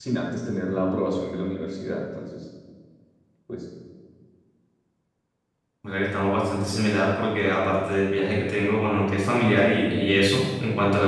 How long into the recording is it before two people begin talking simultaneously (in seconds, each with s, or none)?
none